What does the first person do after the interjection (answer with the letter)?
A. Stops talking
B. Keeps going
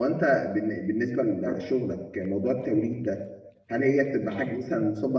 B